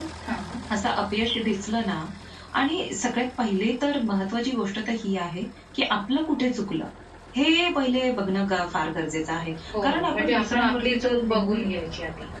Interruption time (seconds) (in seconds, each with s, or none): 9.7 s